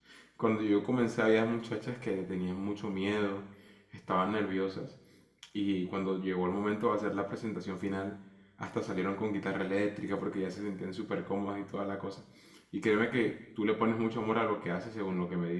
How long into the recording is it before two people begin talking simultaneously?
none

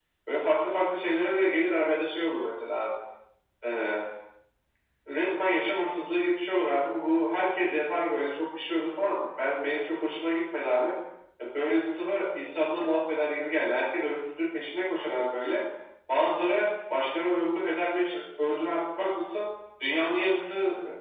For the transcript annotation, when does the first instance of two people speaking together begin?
none

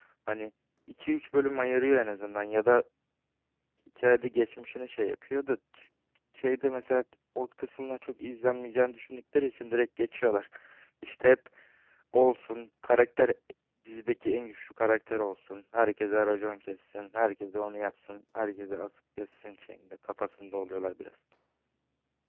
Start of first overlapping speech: none

